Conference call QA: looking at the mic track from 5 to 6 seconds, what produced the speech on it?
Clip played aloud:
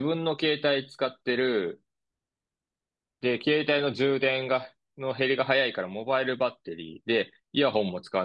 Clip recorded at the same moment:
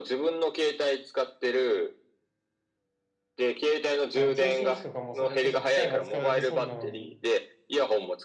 both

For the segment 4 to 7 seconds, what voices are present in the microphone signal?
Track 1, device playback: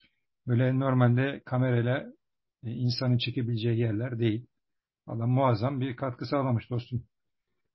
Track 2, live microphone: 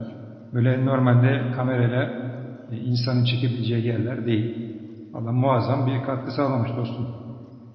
echo only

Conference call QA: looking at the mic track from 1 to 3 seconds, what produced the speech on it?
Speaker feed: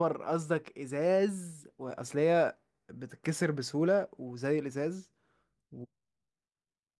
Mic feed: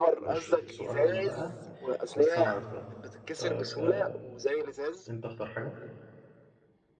both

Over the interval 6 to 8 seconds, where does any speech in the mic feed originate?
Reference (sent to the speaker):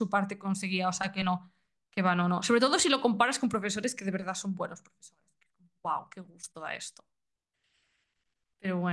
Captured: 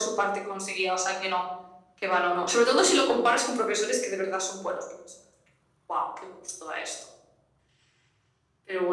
echo only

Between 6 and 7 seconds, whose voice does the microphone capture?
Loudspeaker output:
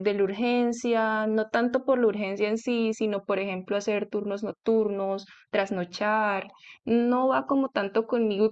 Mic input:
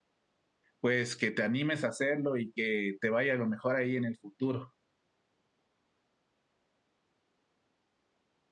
neither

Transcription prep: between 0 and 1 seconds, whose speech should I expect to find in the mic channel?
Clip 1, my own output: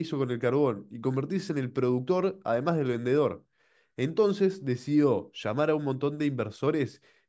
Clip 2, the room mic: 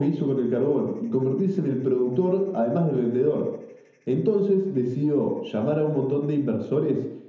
echo only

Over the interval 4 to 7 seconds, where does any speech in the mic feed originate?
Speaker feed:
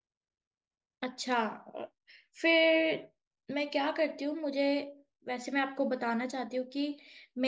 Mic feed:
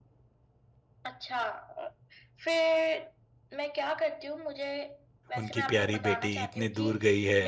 both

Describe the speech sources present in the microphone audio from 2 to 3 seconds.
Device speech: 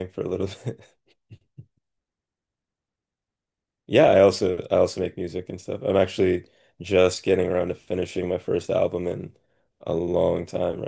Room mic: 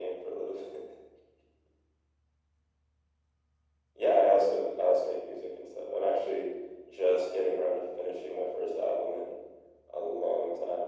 neither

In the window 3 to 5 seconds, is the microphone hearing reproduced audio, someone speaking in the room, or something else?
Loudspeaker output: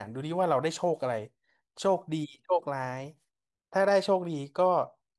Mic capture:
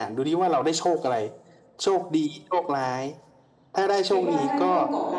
both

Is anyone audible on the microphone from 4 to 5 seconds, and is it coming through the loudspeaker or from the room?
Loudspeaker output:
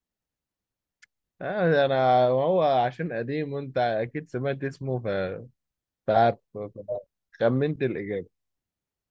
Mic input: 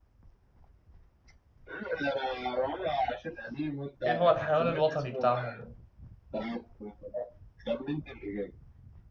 both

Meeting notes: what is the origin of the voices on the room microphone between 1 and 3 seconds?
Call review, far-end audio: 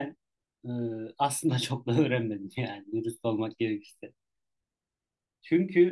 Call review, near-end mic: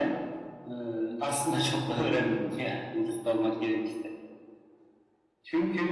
echo only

